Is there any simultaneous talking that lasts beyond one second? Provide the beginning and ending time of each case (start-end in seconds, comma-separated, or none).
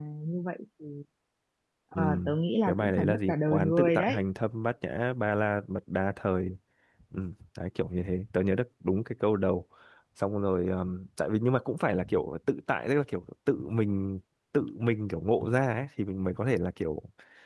2.7-4.2